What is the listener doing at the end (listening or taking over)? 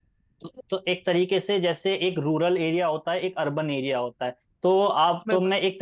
listening